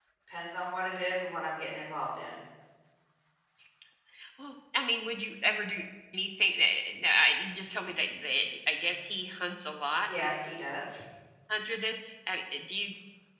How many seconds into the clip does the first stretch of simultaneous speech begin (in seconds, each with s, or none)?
none